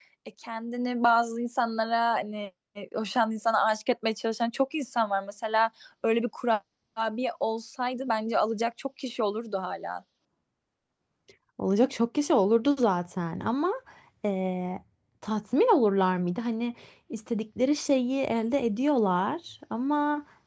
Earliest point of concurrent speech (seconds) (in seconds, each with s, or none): none